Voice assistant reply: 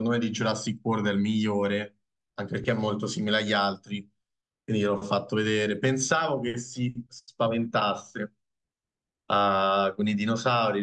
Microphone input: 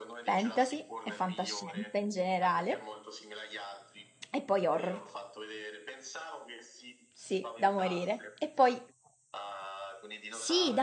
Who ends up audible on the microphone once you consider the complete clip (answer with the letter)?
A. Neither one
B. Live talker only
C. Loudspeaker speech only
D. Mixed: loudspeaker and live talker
D